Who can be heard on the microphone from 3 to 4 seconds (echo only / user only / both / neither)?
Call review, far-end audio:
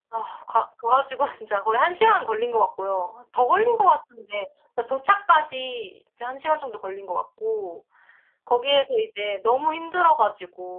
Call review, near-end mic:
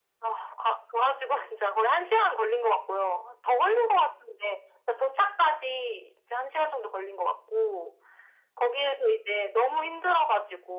echo only